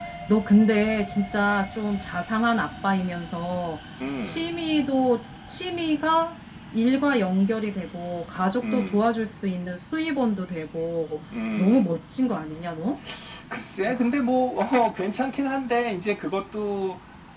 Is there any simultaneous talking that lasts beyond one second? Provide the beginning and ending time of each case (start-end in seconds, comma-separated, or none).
none